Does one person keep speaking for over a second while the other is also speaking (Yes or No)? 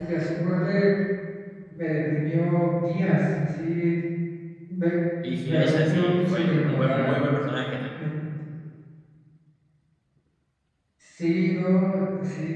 Yes